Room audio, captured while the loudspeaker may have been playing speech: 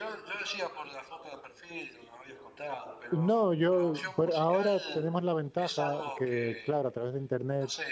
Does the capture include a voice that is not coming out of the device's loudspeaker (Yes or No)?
Yes